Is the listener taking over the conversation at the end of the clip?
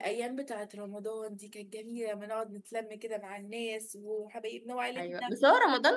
Yes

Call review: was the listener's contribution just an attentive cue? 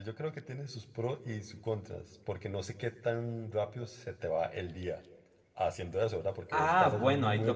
No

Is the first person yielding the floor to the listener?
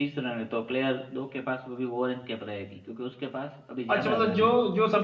Yes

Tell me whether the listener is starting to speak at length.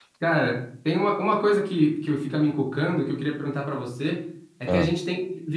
No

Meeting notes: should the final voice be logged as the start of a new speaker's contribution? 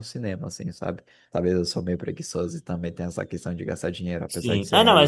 Yes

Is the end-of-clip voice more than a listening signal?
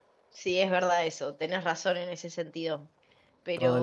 Yes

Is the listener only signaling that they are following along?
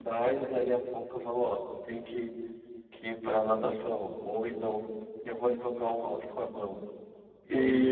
Yes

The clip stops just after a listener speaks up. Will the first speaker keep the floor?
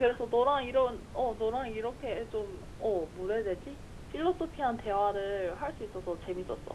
No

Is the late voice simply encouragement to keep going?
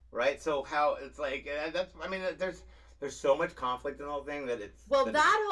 No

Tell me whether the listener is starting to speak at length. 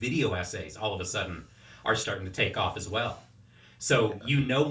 No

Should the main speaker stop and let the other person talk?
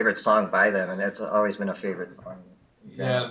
Yes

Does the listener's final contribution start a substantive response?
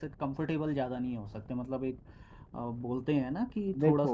Yes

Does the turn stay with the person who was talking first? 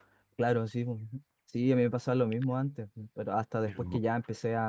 Yes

